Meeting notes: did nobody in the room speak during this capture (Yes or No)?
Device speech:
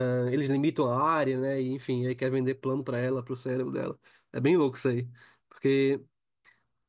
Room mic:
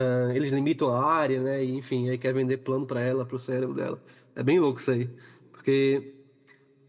Yes